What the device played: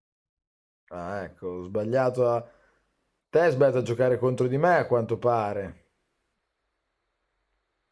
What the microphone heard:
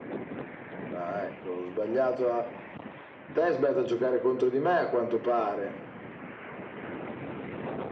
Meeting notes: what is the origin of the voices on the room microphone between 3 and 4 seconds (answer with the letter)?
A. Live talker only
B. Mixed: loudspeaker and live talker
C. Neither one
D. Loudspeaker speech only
D